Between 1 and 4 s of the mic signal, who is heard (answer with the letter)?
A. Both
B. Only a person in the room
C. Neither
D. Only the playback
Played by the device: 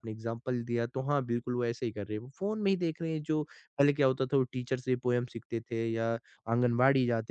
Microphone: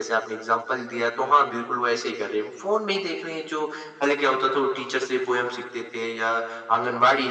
D